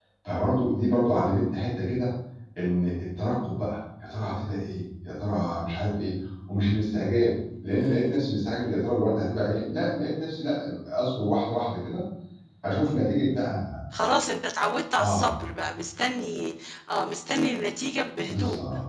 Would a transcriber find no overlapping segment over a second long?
Yes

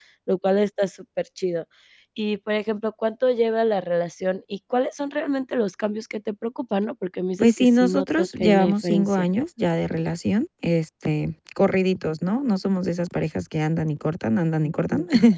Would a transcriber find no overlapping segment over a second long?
No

